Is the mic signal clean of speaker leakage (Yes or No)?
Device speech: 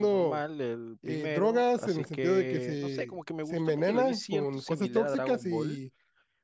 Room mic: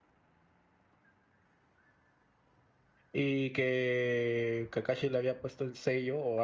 Yes